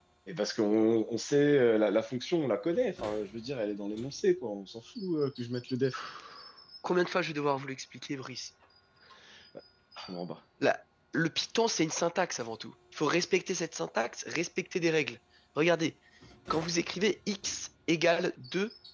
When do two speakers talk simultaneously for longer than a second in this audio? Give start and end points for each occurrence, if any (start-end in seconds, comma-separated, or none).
none